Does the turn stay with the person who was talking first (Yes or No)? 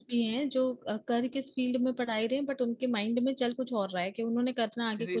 No